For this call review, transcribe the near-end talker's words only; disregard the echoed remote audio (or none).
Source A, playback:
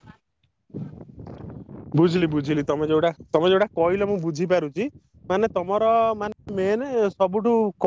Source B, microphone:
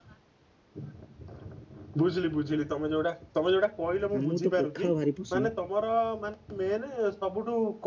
ଆମକୁ ତ ପଖାଳ ଭାରି ପସନ୍ଦ।